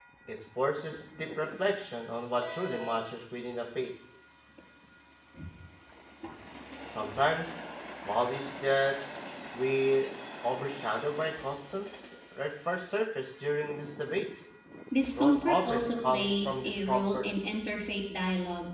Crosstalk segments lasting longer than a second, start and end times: 15.2-17.2

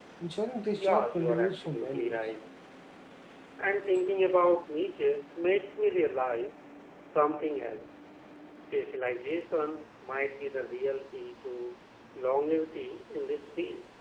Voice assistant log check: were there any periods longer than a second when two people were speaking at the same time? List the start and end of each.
0.7-2.2

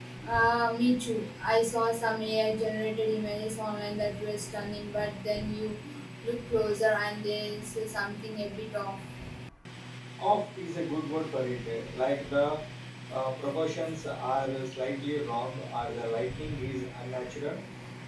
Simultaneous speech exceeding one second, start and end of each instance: none

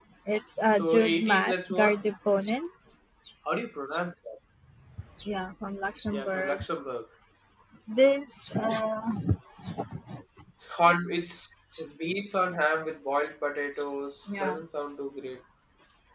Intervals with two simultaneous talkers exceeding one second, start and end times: 0.7-2.0

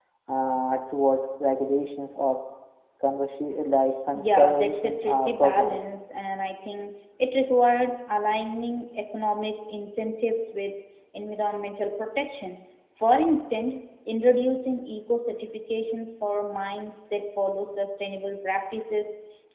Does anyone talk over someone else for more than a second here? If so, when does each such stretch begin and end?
4.1-5.8

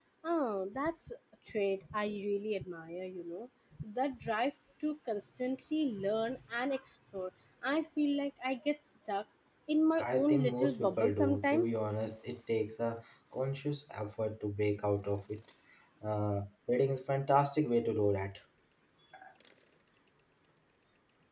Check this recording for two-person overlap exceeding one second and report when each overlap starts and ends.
10.0-11.7

